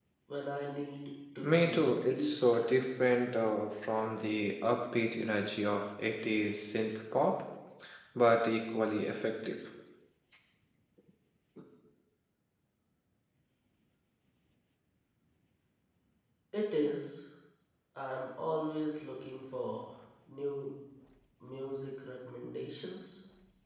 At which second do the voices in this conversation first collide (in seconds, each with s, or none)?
1.4 s